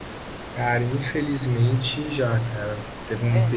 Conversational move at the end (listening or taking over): listening